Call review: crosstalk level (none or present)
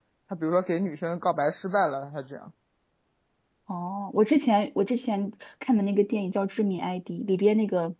none